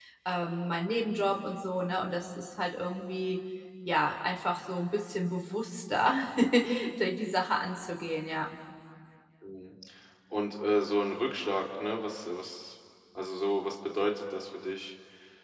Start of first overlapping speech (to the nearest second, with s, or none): none